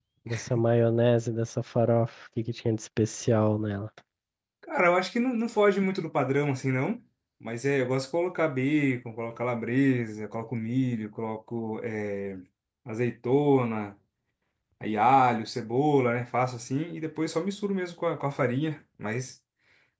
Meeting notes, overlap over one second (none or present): none